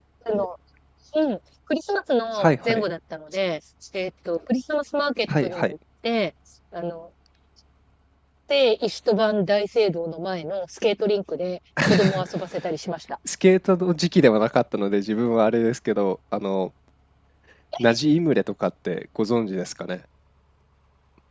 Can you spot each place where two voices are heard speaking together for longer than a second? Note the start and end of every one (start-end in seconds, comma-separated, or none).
none